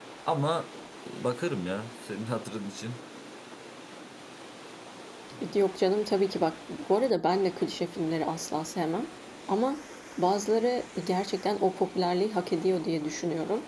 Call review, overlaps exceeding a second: none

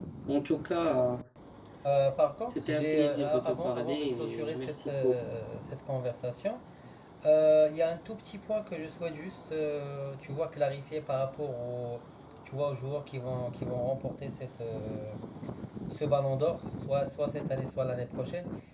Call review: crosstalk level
present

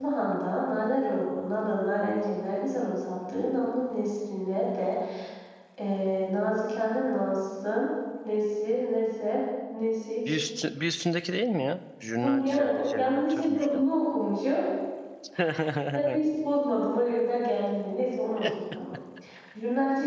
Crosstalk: present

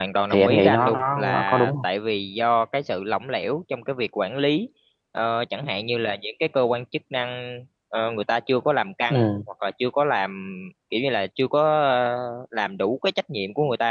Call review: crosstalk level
present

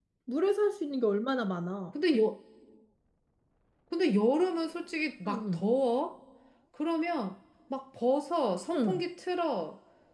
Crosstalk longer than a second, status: none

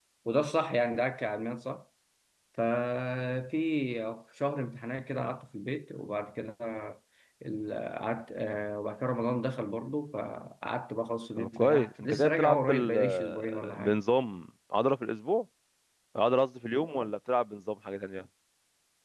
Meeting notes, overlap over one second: present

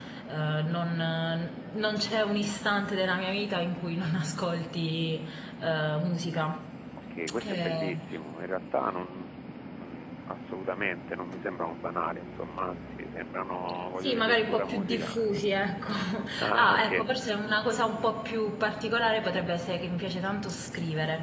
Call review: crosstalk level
present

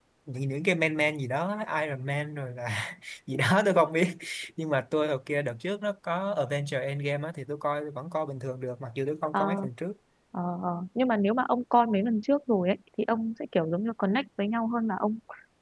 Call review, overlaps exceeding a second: none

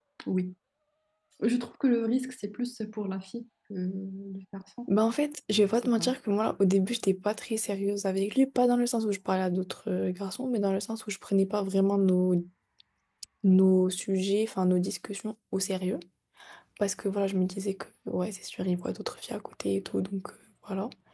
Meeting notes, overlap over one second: none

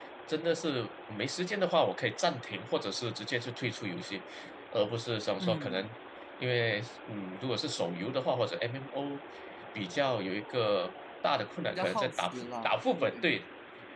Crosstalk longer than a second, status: present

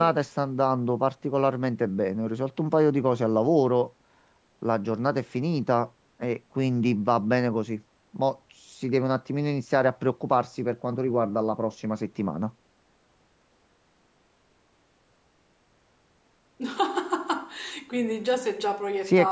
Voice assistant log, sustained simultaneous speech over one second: none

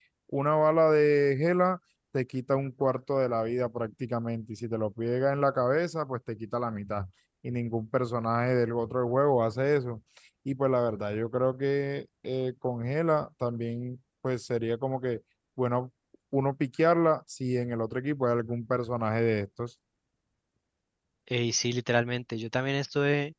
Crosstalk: none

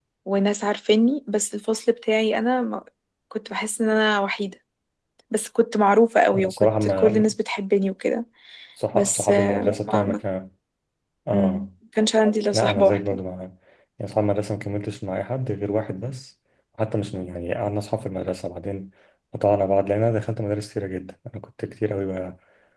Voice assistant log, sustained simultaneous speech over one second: present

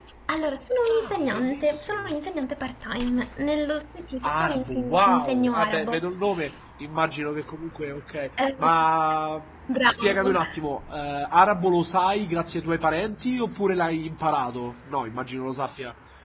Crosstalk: present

